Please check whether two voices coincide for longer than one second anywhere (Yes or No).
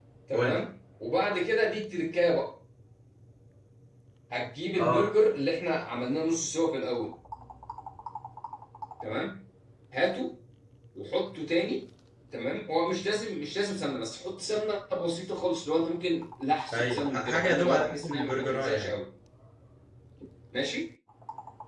Yes